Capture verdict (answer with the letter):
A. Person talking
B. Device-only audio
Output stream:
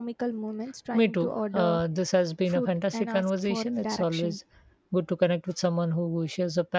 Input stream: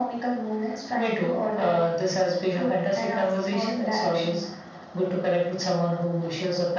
B